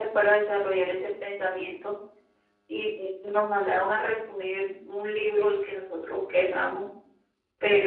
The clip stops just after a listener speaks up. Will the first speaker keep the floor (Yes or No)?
Yes